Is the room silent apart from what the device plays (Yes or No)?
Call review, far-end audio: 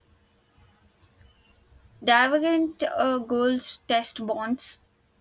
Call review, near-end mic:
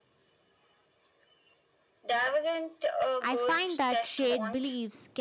No